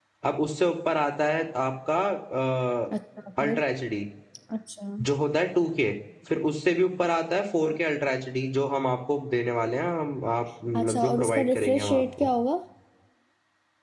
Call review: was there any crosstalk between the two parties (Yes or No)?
Yes